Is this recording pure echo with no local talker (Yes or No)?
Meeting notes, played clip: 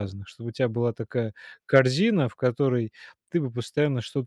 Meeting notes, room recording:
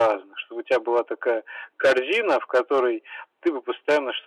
Yes